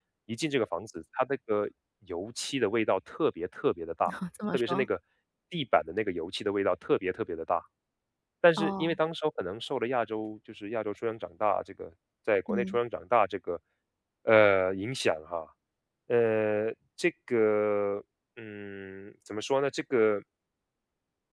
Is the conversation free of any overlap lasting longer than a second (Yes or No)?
Yes